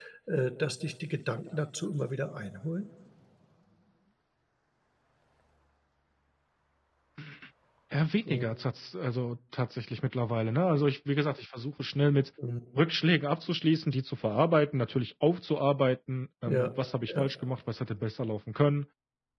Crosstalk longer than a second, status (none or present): none